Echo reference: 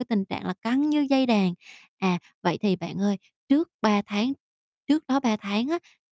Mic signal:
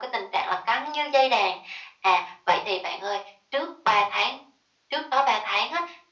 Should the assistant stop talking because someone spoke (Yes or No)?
No